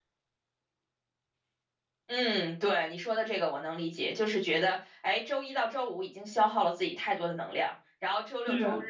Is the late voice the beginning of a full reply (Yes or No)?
No